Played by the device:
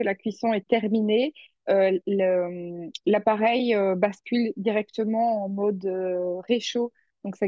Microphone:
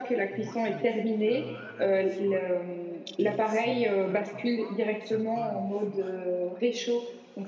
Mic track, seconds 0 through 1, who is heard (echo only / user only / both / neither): both